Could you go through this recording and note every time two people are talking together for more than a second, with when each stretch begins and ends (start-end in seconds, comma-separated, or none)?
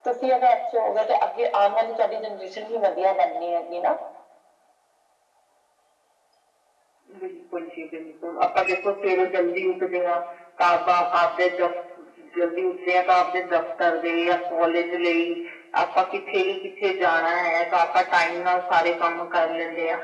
none